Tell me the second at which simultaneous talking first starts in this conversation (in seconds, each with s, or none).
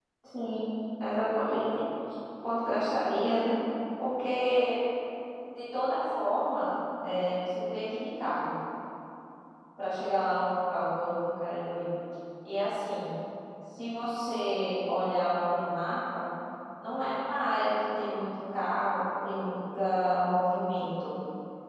none